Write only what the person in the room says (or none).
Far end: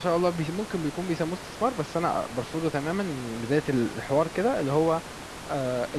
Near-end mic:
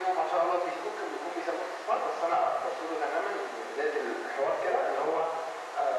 none